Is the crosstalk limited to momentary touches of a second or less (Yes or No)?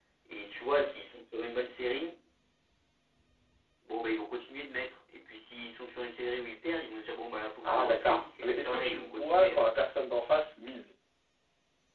No